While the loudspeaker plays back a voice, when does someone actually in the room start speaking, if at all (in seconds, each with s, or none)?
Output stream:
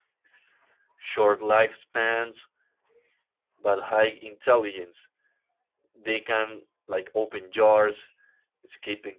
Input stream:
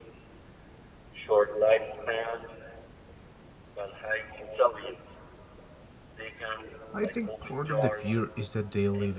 6.9 s